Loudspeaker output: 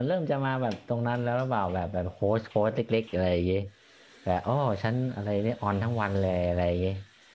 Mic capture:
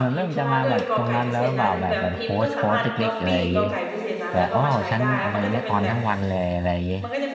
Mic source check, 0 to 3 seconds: both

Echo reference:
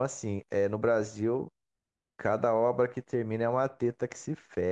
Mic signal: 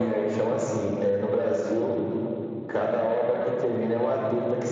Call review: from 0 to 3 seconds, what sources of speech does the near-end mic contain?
echo only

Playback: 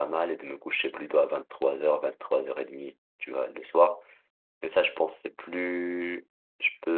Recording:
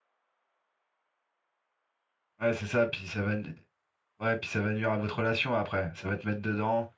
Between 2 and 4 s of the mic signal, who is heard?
user only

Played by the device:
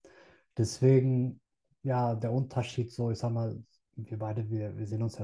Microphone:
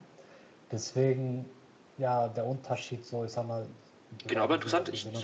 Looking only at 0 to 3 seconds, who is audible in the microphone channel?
echo only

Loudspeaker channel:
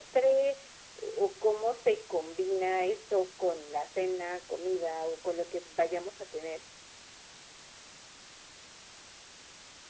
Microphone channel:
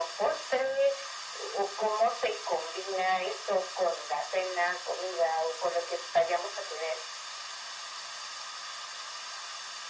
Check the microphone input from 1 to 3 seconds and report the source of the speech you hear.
echo only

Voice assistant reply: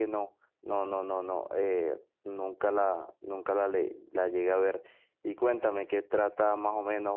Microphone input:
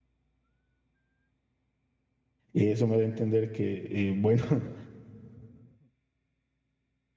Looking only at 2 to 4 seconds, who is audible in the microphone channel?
user only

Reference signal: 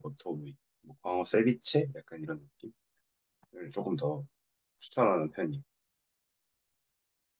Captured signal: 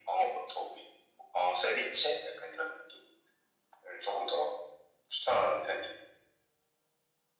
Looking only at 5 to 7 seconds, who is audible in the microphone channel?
echo only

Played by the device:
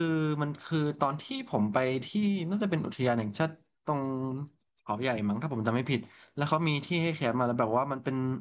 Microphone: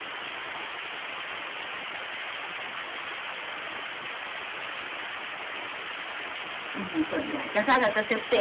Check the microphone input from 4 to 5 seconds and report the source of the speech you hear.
neither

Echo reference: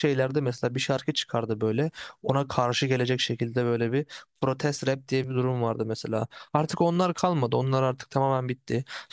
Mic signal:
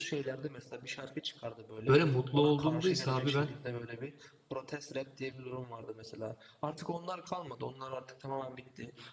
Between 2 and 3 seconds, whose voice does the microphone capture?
both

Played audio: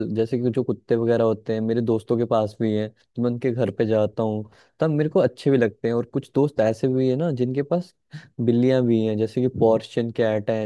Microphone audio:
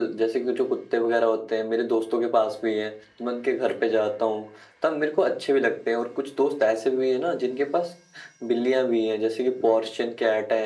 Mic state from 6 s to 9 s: echo only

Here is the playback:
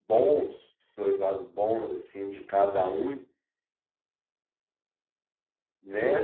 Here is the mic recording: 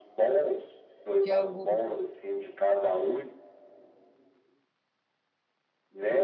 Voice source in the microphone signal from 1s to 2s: both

